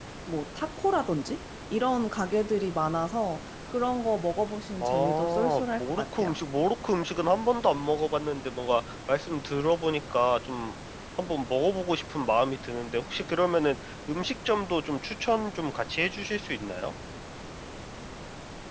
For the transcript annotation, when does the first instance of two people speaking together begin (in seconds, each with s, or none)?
4.8 s